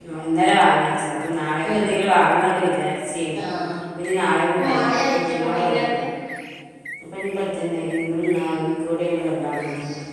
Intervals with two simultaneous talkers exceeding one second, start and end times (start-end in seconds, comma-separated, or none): 4.6-6.0